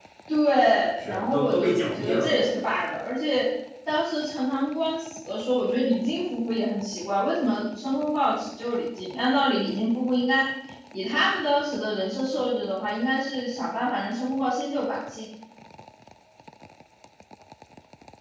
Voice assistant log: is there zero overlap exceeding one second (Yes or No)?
No